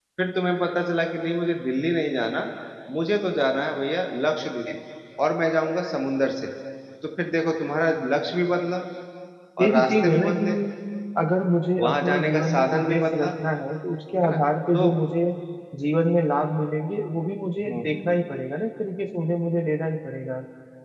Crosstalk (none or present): present